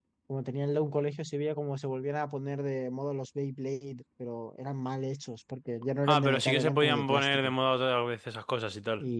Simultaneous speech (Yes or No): Yes